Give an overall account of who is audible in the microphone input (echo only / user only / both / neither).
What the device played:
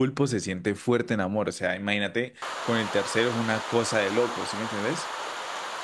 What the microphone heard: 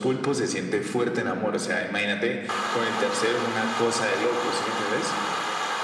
echo only